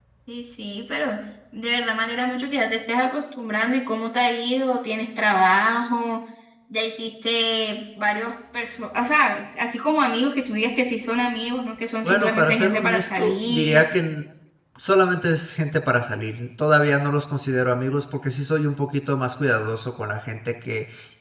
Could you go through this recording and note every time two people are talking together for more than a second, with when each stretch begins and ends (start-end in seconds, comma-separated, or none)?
12.0-13.8